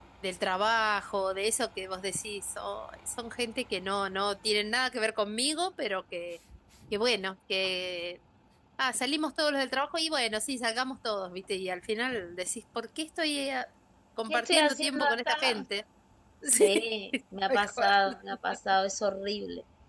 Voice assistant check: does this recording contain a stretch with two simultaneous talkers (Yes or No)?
Yes